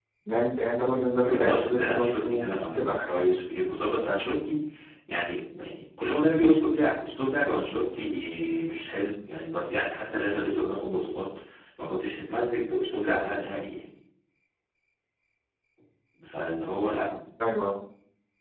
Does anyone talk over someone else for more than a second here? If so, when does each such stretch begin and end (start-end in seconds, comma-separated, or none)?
1.2-3.1